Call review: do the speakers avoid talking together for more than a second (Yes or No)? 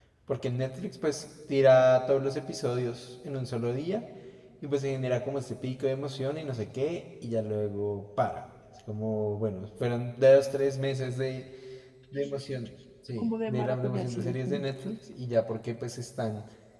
No